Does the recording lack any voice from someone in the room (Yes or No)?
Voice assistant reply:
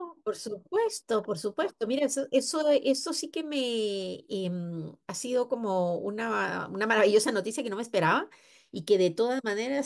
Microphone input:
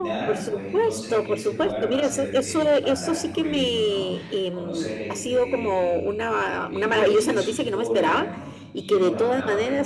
No